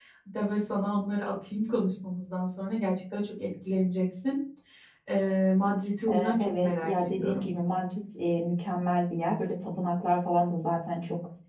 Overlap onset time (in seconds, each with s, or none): 6.1 s